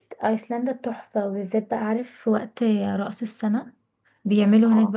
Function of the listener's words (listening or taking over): listening